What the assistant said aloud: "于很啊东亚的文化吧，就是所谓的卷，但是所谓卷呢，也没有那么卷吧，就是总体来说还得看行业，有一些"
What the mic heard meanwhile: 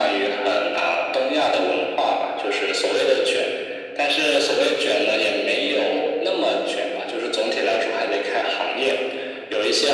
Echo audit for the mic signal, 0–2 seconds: echo only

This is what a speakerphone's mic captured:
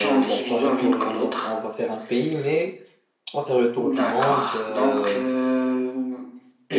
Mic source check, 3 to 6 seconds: both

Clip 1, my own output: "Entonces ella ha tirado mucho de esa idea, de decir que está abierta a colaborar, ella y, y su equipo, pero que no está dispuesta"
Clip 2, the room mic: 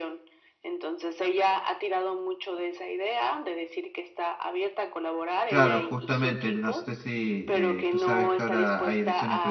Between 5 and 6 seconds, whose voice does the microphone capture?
both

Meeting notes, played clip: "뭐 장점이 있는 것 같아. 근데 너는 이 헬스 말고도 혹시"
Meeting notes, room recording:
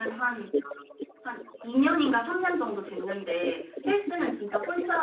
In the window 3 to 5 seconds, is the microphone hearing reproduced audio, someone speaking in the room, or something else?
both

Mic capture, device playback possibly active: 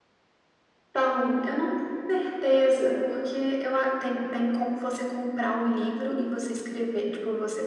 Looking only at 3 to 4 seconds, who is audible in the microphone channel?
echo only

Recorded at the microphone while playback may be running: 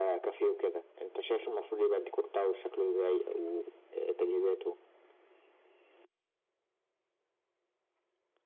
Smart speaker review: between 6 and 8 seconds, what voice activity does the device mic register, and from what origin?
neither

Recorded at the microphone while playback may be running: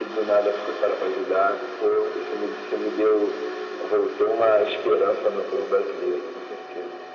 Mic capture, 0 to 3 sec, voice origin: echo only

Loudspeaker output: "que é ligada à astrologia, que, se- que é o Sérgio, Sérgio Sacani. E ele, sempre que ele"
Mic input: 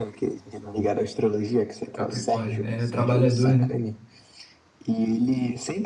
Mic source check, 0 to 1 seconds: echo only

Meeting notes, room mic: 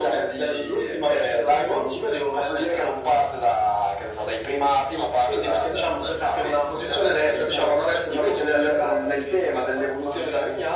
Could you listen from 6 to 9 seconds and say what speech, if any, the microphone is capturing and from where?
echo only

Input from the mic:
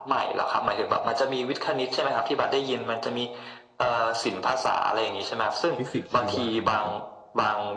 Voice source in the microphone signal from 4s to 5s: echo only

